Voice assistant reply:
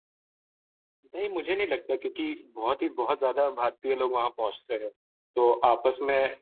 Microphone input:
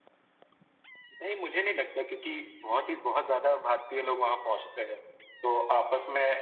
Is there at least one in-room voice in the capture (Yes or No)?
No